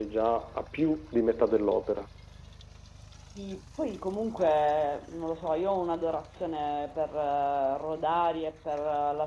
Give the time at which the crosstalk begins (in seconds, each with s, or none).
none